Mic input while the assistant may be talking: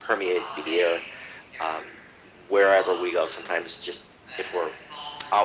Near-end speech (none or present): present